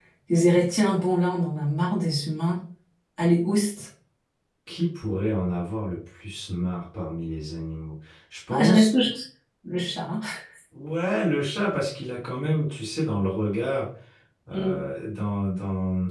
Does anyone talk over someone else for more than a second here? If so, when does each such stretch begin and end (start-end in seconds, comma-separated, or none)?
none